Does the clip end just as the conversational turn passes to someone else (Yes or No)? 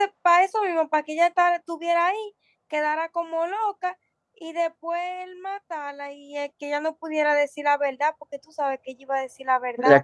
Yes